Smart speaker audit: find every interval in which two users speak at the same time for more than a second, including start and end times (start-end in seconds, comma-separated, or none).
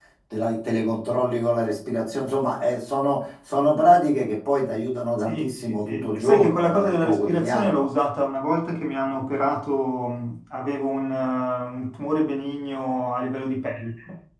5.3-7.8